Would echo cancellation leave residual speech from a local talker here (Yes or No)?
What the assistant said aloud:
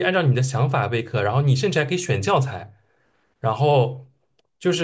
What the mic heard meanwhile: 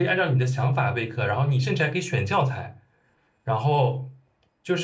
No